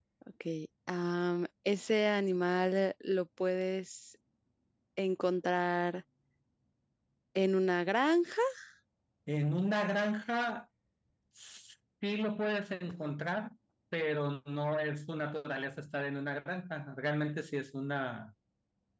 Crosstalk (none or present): none